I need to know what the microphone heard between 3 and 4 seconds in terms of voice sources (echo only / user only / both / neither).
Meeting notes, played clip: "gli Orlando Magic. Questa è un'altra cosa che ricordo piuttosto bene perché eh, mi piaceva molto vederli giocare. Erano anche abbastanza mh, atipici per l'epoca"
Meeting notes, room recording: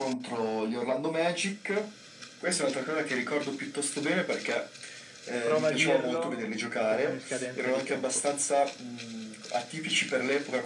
echo only